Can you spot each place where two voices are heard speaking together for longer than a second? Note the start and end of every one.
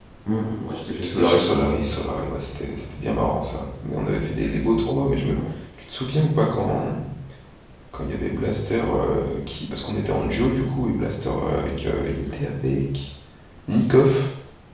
none

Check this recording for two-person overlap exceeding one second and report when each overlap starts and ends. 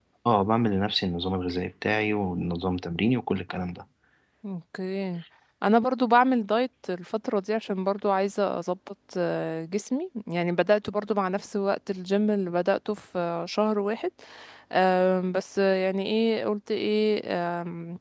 none

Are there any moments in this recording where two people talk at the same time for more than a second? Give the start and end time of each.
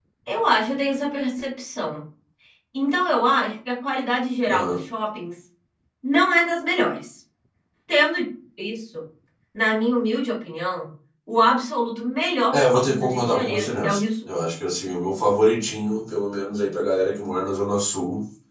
12.5-14.0

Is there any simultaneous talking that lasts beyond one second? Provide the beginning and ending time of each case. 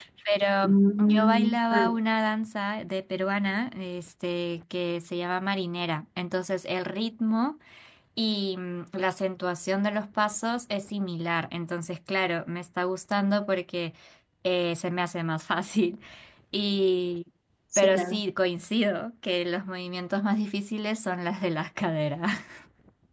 0.6-2.0

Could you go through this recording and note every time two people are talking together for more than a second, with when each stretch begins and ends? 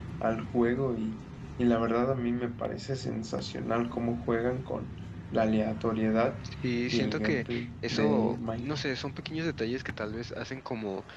6.9-8.8

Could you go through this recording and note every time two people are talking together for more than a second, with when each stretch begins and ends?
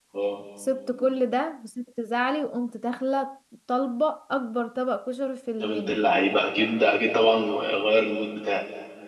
none

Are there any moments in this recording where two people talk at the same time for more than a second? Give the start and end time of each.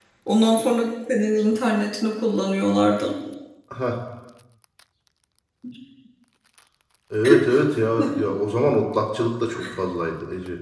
none

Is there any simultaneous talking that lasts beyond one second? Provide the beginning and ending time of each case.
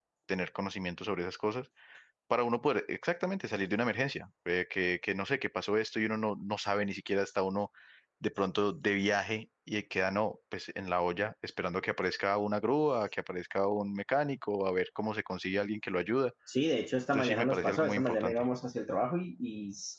17.1-18.4

